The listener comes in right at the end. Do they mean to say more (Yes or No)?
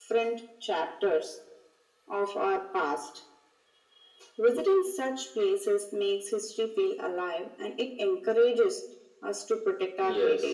Yes